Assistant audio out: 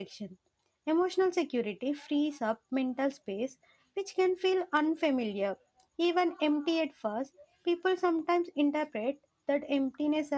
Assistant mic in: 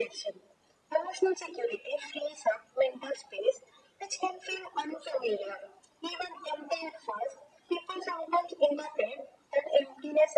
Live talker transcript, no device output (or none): none